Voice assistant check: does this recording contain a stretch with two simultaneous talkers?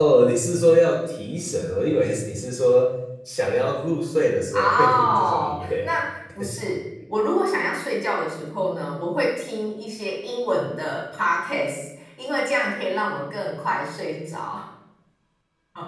Yes, from 4.5 s

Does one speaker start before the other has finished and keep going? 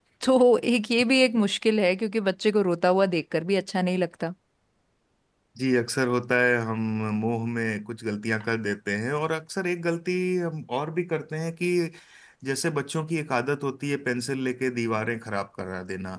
No

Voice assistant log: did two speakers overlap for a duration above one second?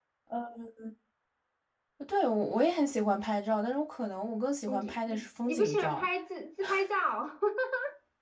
Yes, from 4.7 s

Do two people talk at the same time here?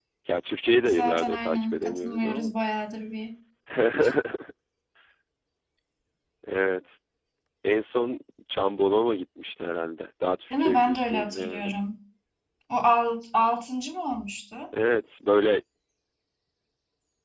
Yes, from 0.9 s

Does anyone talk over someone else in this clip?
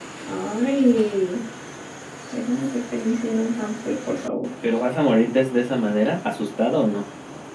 No

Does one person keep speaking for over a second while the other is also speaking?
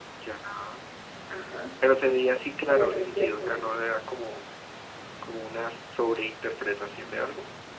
Yes, from 2.7 s

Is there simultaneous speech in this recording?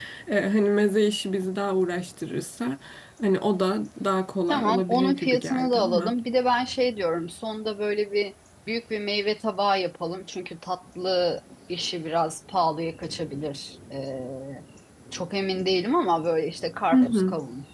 Yes, from 4.5 s

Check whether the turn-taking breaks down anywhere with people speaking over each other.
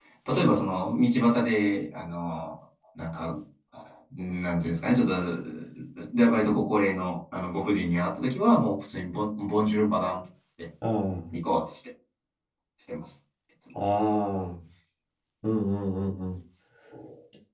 No

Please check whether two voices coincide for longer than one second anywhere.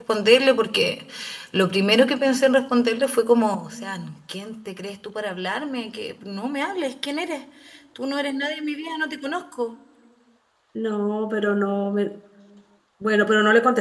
No

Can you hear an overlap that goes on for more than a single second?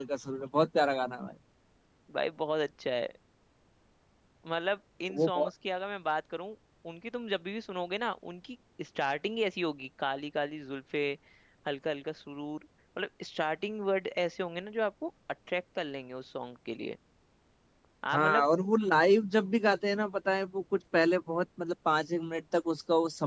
No

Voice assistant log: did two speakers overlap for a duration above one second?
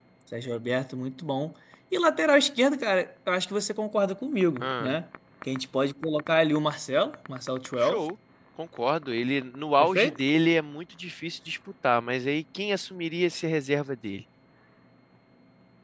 No

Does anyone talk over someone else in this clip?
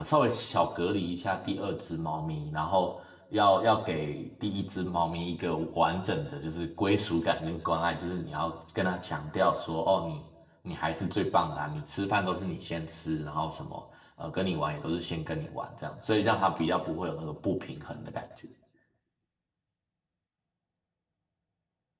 No

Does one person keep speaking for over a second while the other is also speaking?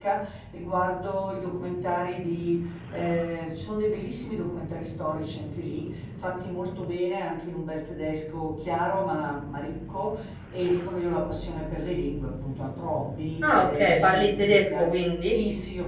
Yes, from 13.4 s

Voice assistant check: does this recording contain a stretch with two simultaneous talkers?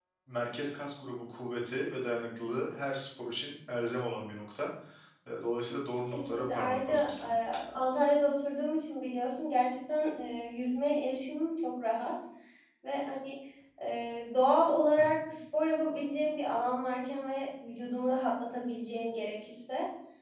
Yes, from 6.1 s

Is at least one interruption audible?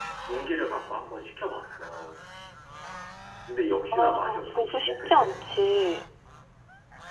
Yes, from 3.9 s

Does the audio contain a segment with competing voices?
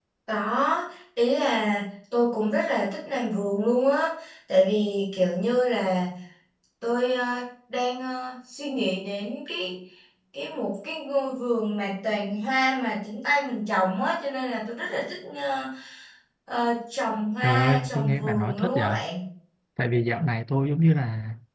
Yes, from 17.4 s

